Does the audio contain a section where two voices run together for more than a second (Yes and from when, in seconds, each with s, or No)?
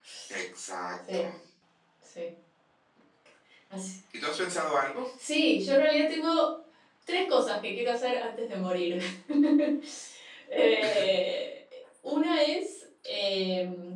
No